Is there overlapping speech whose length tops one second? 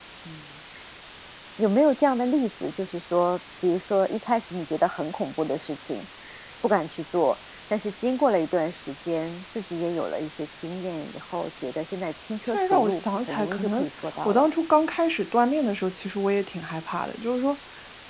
Yes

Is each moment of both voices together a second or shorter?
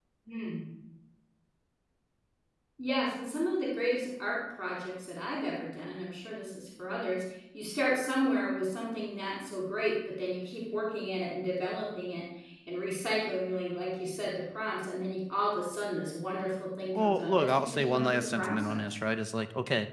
No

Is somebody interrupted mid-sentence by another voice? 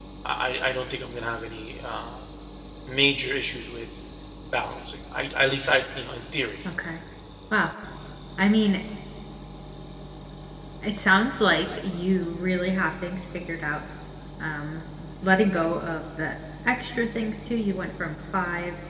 No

